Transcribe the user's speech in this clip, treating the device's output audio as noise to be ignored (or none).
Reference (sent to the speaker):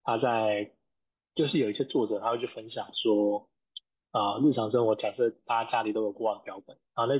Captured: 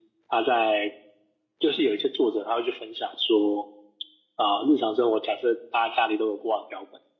none